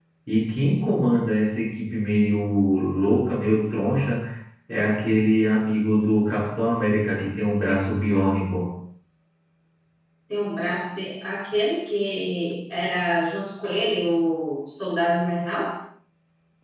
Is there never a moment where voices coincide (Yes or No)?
Yes